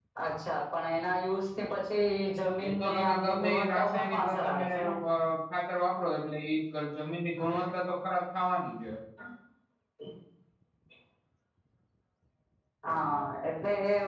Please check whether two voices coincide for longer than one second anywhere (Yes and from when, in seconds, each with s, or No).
Yes, from 2.6 s